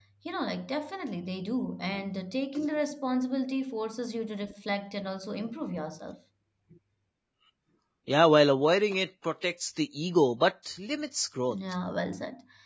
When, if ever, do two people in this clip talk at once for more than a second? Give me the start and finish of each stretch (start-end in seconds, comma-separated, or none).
none